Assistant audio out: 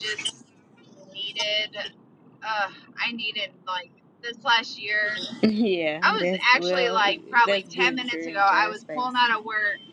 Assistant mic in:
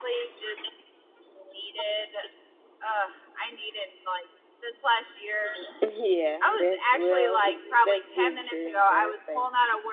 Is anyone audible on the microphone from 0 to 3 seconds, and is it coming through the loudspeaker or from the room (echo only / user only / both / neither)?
echo only